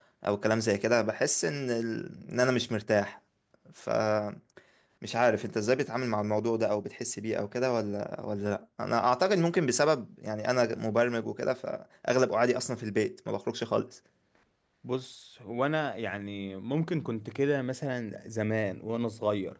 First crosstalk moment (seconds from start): none

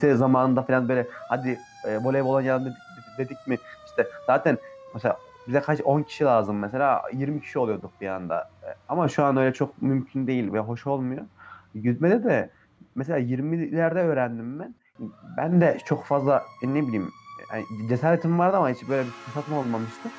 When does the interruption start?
none

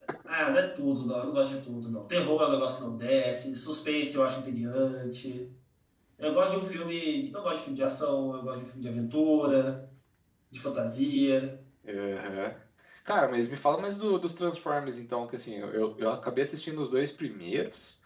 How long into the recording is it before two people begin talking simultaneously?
none

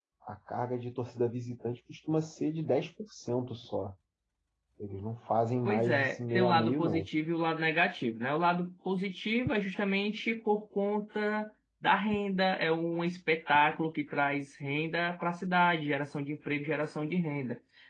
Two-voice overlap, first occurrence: 6 s

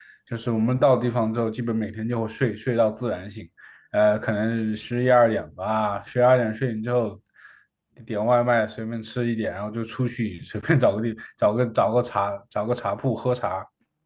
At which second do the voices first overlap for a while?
none

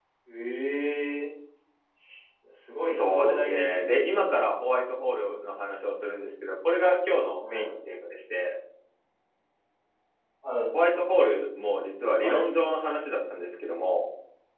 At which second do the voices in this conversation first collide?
3 s

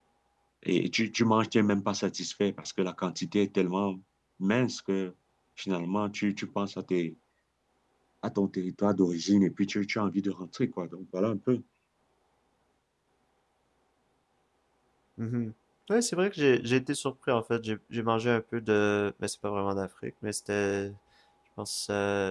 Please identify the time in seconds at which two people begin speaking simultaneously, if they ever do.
none

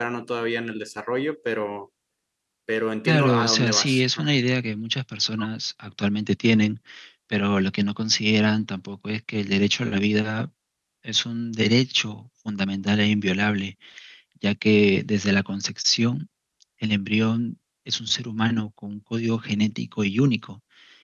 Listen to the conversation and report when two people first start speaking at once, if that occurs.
3 s

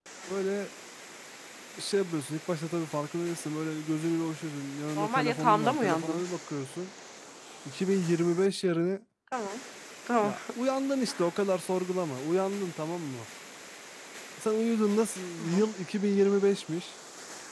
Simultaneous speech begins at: 5 s

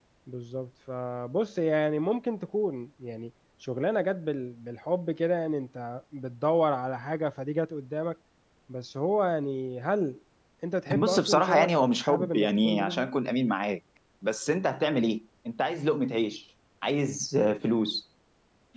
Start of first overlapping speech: 11 s

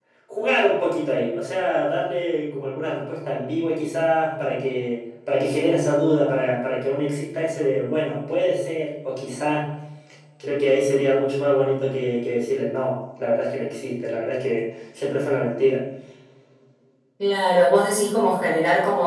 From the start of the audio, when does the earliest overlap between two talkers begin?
none

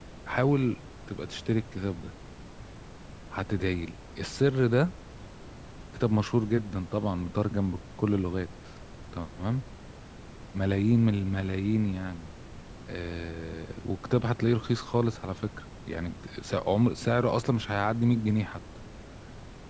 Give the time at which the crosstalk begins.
none

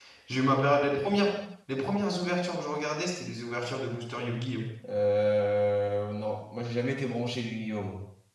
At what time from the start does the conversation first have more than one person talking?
none

